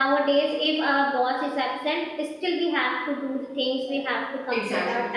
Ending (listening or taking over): listening